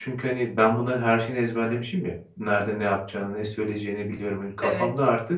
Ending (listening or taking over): listening